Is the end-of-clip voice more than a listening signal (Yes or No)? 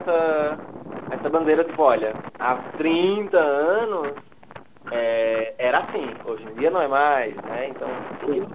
No